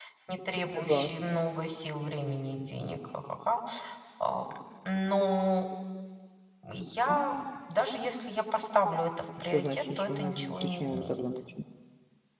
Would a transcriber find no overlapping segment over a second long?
No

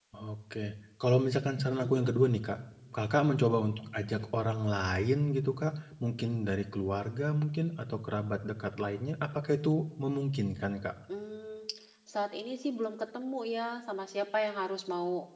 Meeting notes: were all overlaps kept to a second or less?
Yes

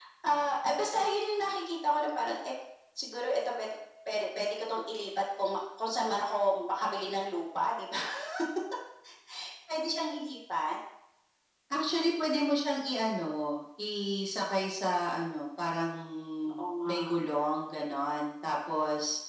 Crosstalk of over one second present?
No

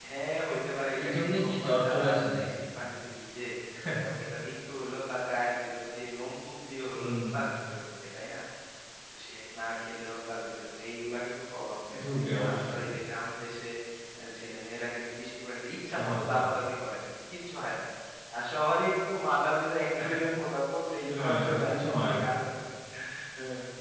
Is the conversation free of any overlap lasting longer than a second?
No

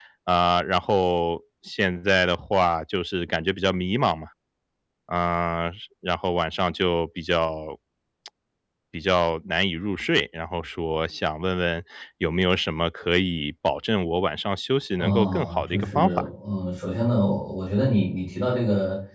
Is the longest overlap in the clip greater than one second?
Yes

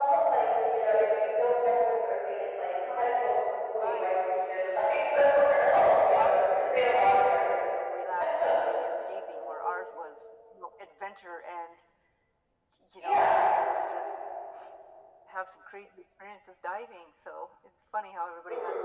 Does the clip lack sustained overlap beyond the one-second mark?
No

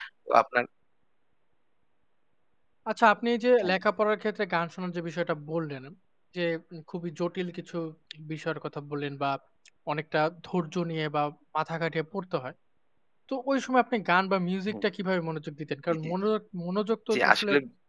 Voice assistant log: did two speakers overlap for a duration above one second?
No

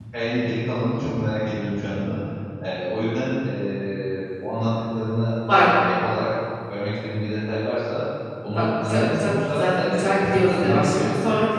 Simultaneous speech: Yes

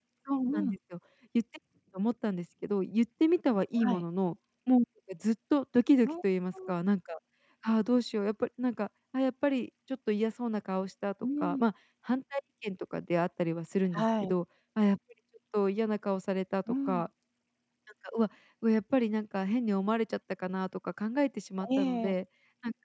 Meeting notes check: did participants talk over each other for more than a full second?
No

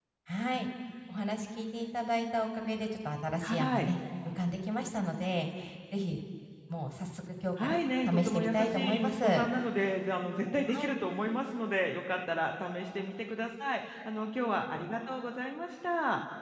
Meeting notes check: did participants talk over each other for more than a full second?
Yes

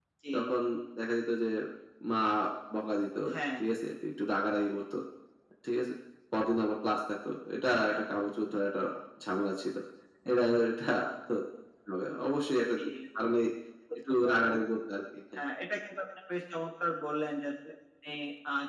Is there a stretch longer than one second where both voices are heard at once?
No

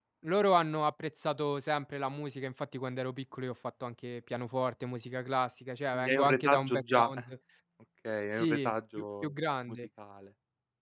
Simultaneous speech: Yes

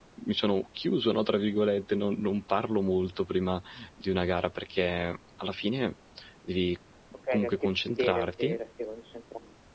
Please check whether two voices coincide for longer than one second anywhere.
Yes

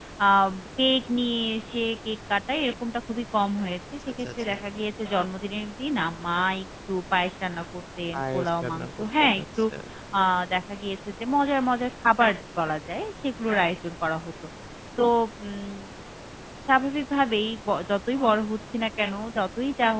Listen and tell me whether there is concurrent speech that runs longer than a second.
Yes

